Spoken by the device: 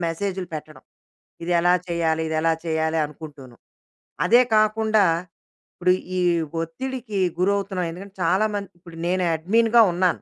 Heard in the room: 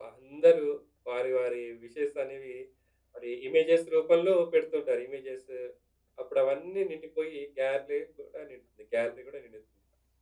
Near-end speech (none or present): present